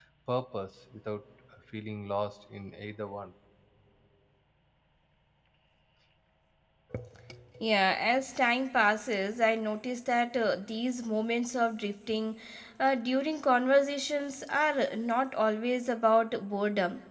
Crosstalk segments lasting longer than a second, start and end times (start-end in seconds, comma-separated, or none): none